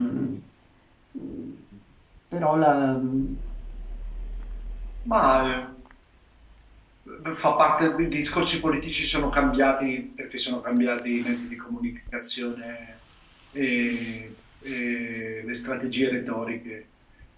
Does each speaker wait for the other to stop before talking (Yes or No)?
Yes